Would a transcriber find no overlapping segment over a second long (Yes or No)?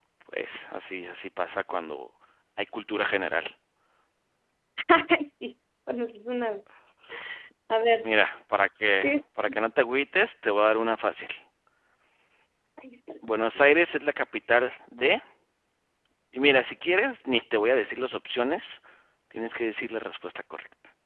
Yes